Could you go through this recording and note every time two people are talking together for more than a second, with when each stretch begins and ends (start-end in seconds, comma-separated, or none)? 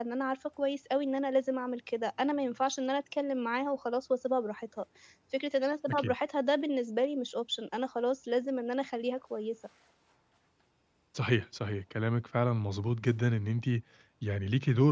none